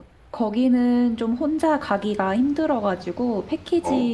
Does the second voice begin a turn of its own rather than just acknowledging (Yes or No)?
No